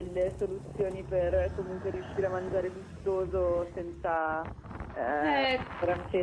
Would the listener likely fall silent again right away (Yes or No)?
Yes